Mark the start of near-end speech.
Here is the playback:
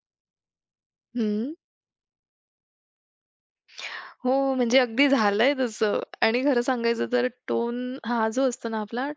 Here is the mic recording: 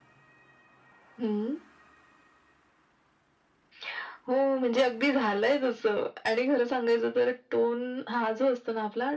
none

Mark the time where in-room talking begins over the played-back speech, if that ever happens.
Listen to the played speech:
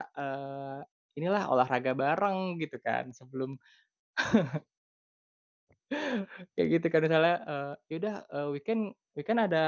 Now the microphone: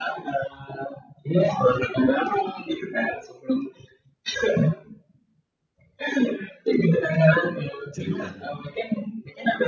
7.9 s

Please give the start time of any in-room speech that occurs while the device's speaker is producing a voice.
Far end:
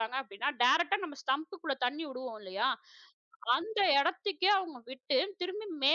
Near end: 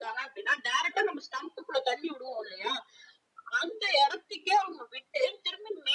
none

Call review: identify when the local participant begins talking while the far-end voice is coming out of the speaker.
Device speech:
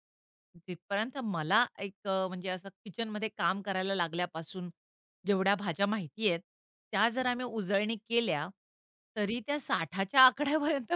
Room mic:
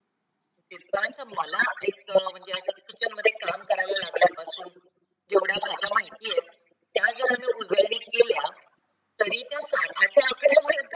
none

